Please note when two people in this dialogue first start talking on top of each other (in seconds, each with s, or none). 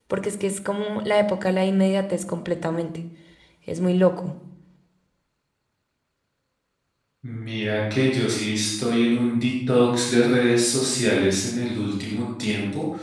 none